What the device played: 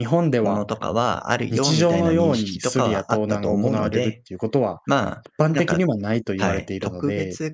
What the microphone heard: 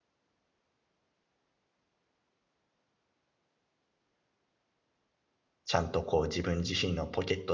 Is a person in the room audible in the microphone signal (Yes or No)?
Yes